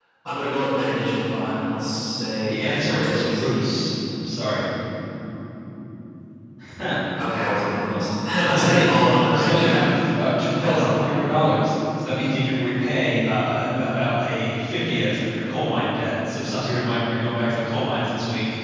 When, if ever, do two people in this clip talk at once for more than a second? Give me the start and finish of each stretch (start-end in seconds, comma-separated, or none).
2.5-3.8, 8.5-9.9